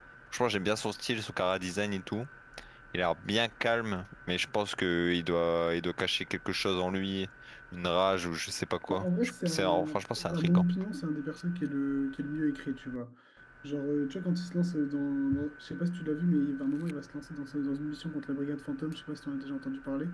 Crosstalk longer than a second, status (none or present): present